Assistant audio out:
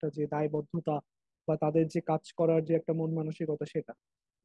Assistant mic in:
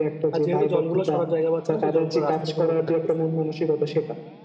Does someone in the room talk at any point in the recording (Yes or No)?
Yes